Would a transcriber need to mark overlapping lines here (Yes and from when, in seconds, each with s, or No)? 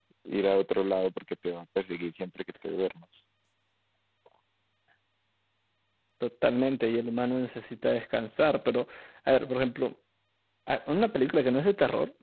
No